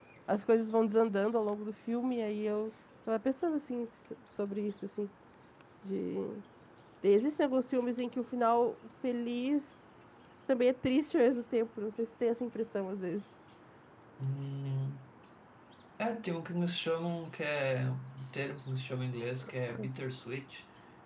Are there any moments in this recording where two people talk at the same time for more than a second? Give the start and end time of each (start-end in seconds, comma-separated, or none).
none